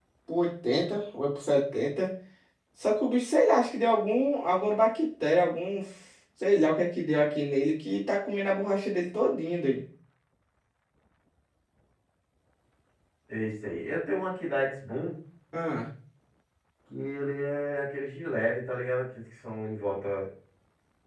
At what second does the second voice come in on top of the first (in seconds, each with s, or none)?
none